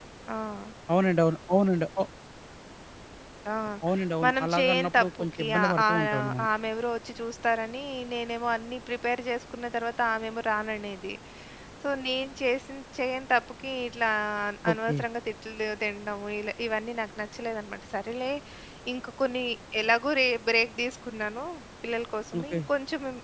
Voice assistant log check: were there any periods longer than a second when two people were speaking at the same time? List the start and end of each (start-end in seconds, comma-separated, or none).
4.2-6.5